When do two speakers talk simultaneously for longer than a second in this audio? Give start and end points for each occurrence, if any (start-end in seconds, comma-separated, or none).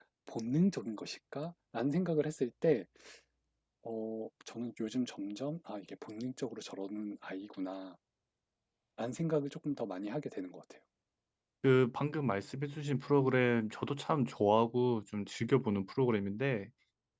none